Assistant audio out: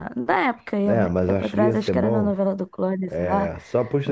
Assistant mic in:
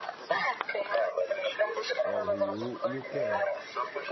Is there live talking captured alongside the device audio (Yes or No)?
Yes